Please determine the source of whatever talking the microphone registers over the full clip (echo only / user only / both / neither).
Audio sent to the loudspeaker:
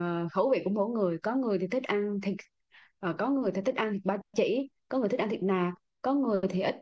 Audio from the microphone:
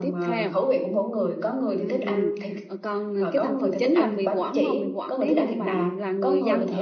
both